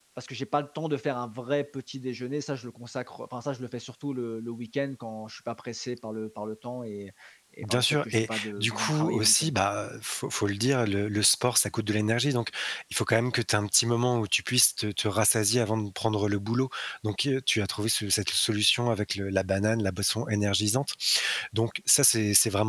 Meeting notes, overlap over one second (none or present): present